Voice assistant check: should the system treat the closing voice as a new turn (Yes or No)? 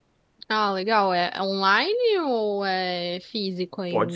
Yes